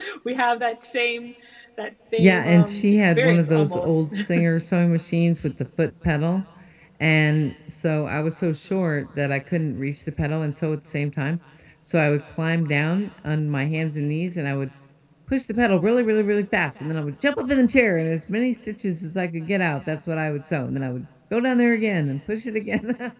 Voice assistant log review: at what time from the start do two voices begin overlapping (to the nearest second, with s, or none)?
2 s